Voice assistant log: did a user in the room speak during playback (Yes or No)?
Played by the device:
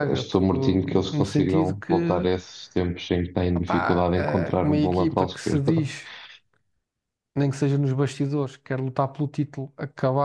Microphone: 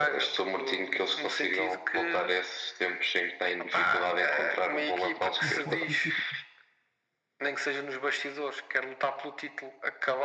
Yes